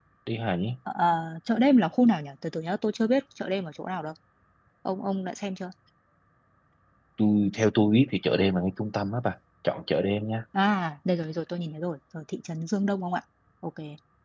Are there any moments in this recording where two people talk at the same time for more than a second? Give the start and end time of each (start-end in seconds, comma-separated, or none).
none